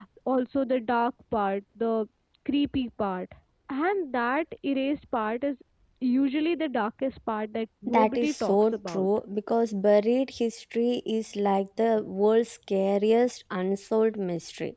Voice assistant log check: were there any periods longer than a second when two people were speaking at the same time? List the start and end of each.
7.9-9.1

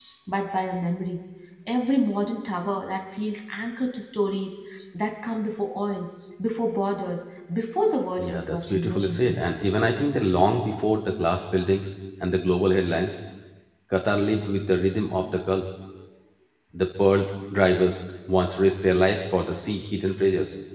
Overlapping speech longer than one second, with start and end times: 8.2-9.4

